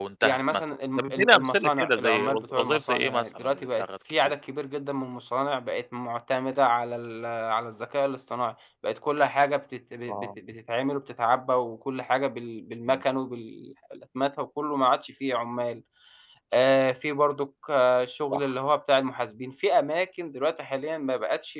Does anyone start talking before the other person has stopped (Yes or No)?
Yes